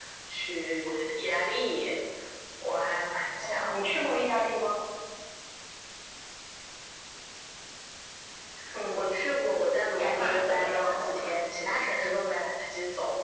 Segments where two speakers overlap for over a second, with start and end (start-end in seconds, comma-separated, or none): 10.0-11.3